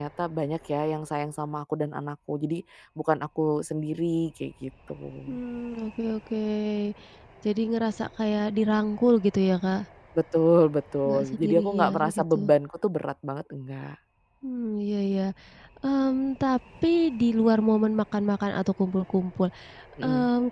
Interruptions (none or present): present